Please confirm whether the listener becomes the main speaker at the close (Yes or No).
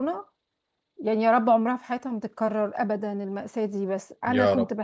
No